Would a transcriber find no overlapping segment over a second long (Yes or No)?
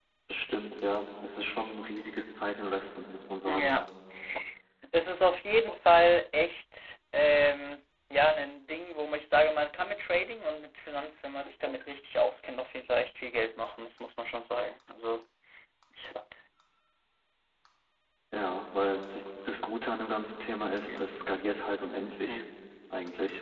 Yes